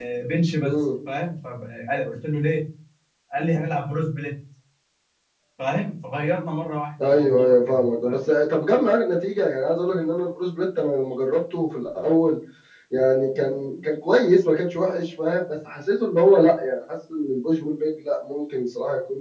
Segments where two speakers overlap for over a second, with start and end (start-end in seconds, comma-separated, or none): 7.0-8.2